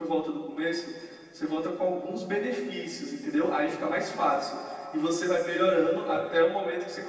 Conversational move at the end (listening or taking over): listening